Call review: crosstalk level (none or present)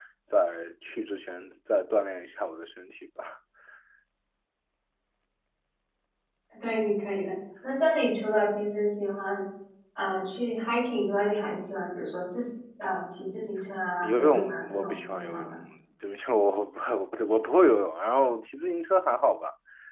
present